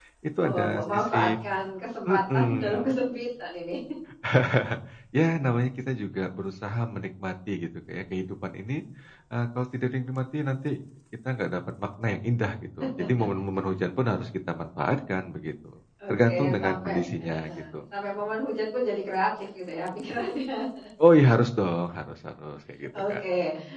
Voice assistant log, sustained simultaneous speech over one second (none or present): present